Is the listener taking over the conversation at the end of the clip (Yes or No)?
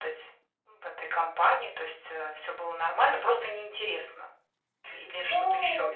Yes